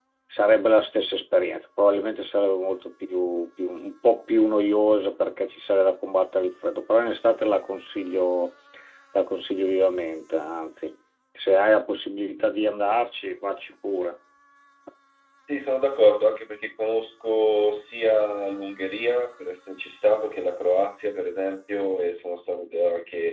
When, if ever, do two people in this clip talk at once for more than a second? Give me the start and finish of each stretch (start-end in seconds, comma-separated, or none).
none